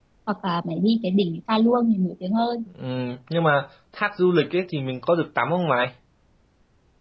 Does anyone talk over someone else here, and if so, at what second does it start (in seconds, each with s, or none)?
none